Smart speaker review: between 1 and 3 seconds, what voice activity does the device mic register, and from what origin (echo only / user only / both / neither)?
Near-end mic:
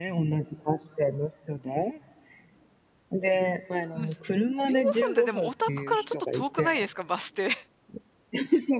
echo only